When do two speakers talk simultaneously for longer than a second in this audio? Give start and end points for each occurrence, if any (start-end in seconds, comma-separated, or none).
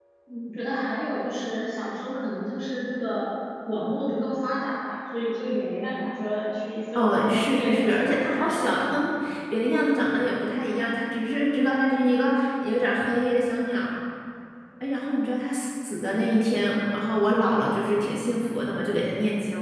7.0-8.9